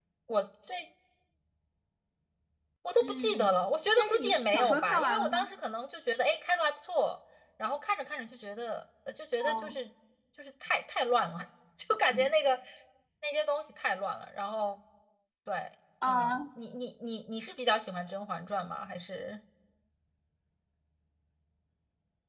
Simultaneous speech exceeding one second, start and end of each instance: 4.0-5.5

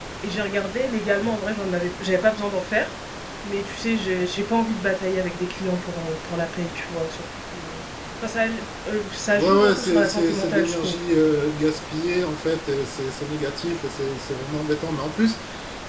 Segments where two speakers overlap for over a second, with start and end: 9.4-11.0

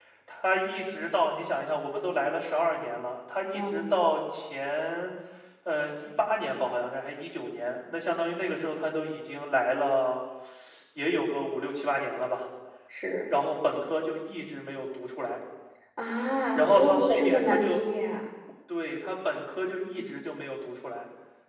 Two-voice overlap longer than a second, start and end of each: 16.6-17.8

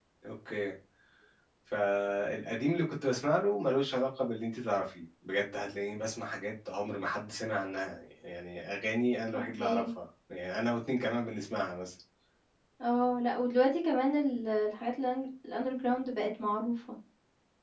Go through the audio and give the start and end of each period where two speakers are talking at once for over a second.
none

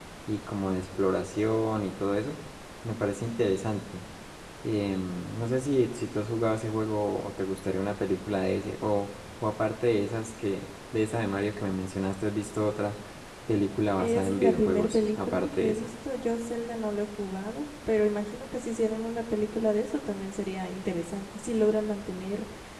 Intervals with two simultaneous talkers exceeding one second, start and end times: 14.0-15.9

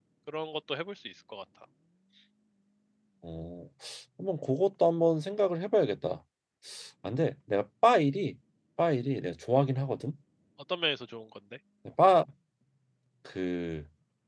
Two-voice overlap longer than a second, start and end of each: none

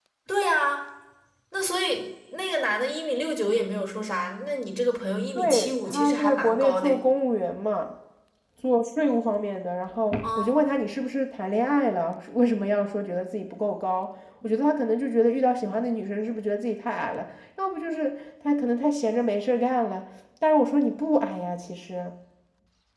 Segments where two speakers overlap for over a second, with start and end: 5.3-7.0

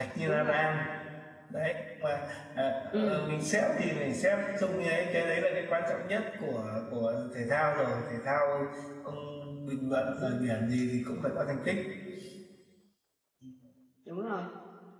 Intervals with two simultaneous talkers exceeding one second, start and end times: none

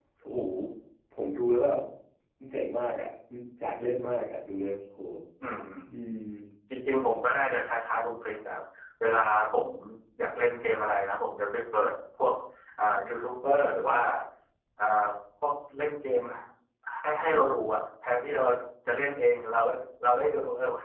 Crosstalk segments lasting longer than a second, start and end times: none

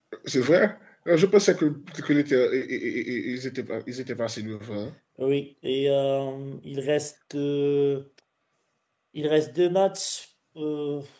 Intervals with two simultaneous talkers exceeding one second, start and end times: none

